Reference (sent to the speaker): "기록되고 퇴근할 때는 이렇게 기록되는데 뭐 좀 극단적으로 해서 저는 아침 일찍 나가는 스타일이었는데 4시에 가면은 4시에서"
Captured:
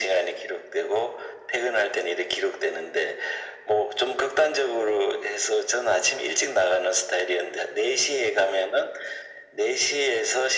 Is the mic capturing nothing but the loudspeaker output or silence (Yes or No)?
Yes